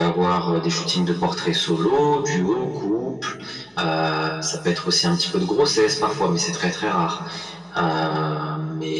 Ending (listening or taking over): listening